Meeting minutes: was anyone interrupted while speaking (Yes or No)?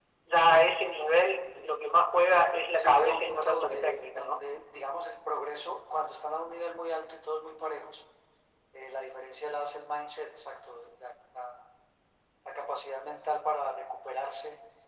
Yes